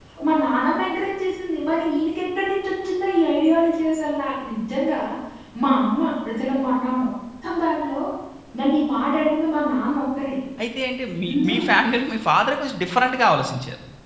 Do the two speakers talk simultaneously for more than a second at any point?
No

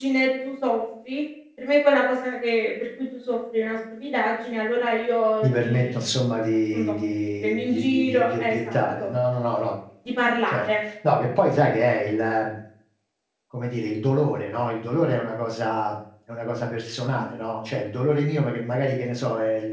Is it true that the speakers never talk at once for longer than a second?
No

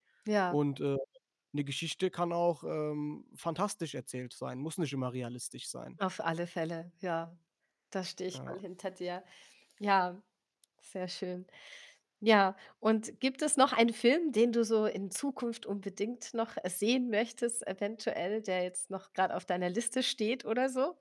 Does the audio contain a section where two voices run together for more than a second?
No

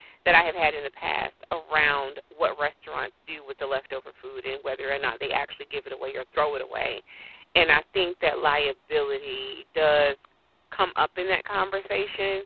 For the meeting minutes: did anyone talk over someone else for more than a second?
No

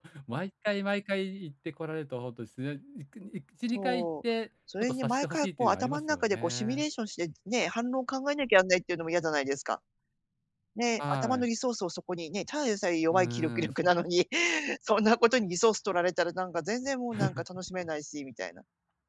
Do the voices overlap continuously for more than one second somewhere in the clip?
Yes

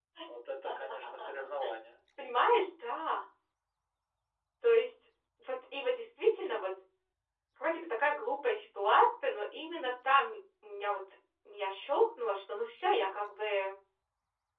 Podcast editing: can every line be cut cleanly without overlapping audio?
Yes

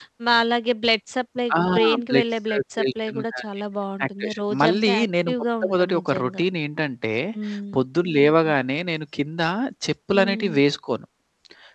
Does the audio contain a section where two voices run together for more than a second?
Yes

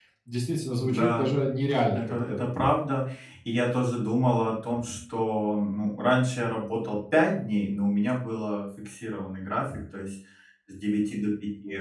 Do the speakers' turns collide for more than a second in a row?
No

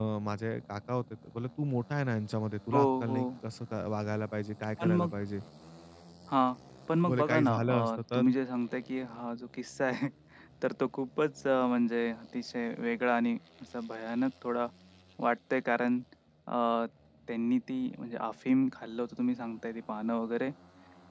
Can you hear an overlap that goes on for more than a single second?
Yes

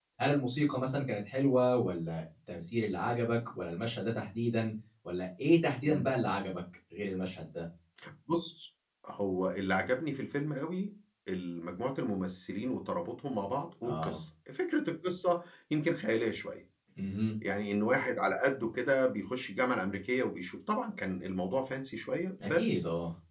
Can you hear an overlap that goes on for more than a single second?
No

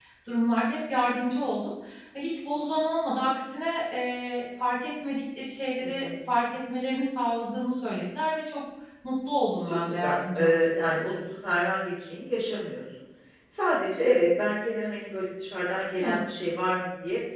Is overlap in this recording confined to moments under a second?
No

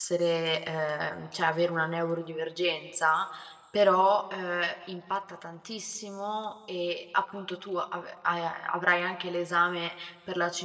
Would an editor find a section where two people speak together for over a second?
No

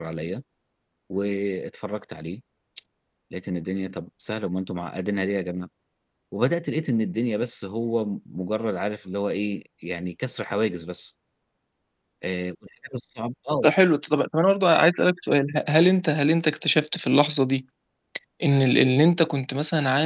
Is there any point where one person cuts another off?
No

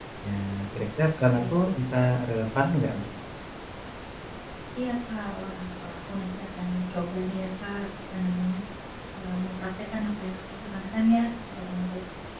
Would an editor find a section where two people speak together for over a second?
No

